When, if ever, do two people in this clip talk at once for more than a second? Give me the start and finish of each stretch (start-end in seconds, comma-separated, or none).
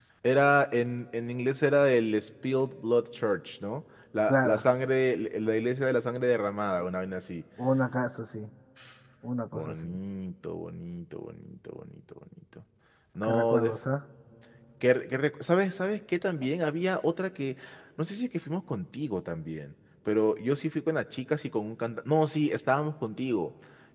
none